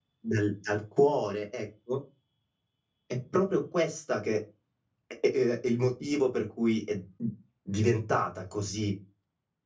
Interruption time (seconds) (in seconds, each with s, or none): none